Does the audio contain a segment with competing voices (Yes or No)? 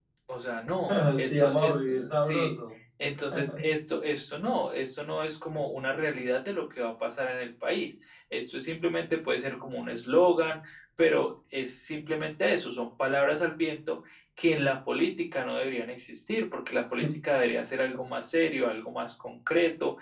Yes